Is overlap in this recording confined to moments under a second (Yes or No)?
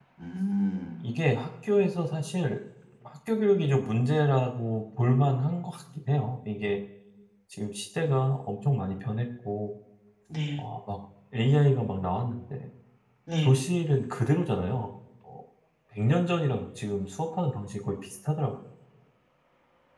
Yes